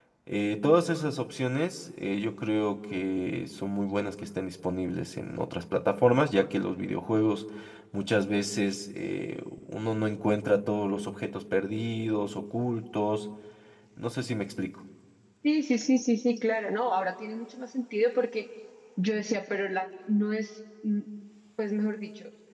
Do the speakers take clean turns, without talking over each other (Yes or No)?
Yes